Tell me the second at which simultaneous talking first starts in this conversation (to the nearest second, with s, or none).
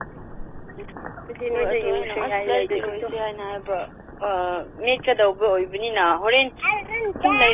2 s